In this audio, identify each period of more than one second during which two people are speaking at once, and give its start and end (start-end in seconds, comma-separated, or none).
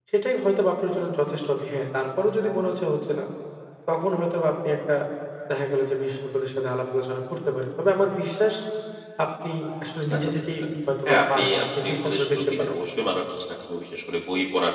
11.1-12.7